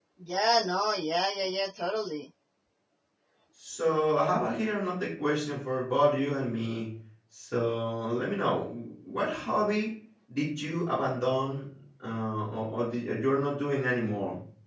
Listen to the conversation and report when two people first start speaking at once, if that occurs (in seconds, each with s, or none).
none